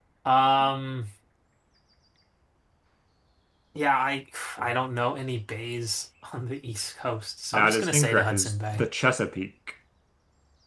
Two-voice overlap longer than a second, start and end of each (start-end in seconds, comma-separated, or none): 7.5-8.9